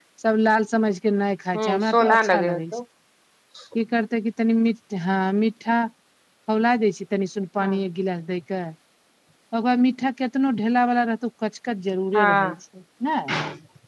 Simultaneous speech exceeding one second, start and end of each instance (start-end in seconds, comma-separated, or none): 1.6-2.8